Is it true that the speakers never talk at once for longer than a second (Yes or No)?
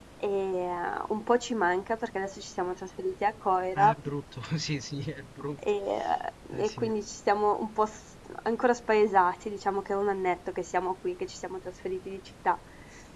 Yes